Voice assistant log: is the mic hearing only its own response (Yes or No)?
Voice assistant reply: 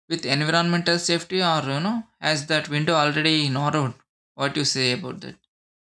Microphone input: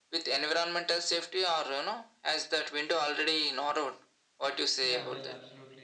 No